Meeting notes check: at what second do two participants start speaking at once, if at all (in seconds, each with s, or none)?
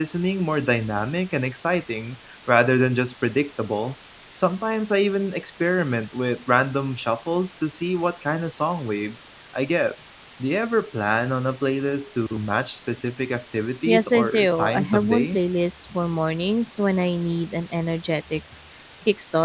13.8 s